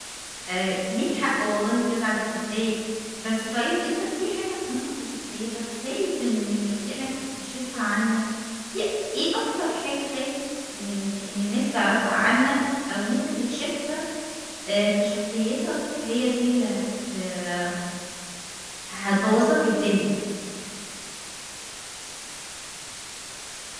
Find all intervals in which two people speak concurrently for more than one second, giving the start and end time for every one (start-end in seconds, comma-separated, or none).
none